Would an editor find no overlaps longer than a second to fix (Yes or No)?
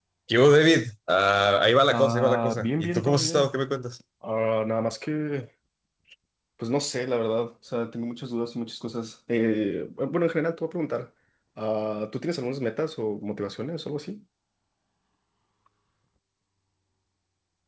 No